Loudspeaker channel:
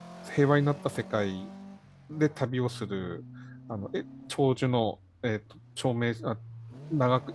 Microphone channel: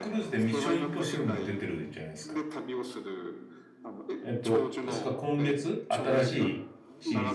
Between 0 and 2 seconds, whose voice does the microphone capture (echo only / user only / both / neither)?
both